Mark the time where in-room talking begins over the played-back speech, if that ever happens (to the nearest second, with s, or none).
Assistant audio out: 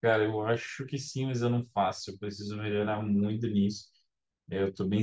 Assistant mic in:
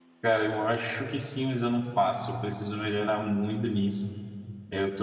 none